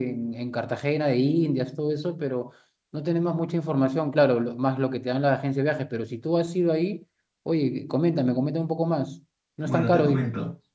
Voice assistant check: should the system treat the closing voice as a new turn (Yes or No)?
Yes